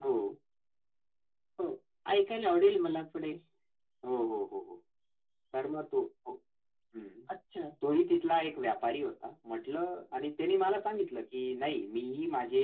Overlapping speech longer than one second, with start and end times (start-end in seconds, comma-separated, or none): none